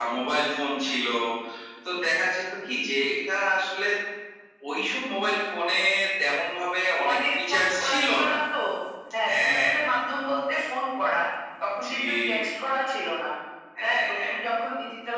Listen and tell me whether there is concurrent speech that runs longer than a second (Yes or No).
Yes